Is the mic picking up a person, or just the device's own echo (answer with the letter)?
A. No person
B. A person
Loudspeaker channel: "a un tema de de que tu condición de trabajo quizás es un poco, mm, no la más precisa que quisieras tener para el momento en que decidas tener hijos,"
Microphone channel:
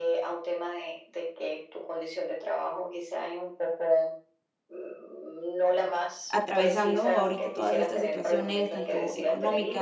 B